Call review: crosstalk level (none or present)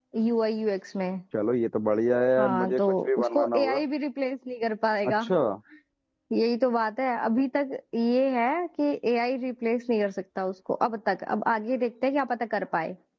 present